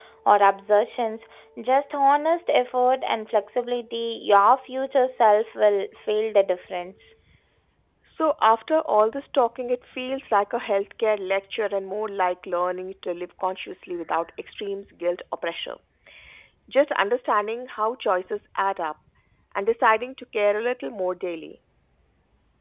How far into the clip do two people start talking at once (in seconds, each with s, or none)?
none